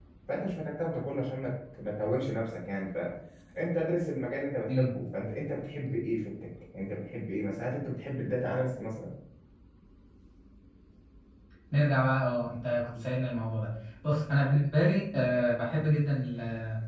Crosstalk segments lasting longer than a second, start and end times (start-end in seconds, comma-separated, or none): none